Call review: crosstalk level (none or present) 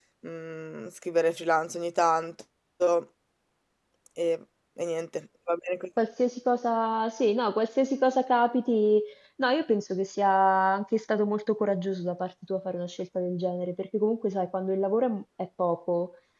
none